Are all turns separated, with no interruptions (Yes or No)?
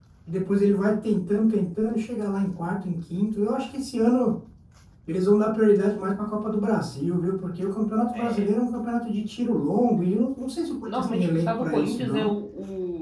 No